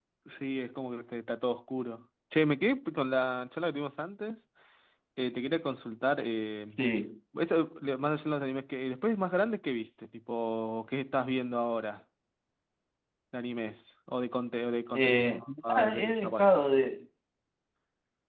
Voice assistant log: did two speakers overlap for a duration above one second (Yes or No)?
Yes